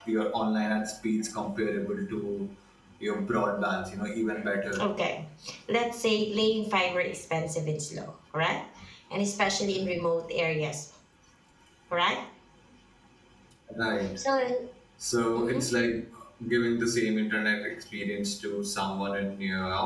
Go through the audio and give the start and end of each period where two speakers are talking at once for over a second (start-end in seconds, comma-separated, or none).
none